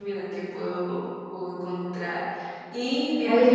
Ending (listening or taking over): taking over